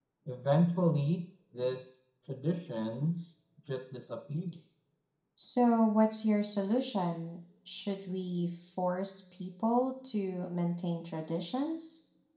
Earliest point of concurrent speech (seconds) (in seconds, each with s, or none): none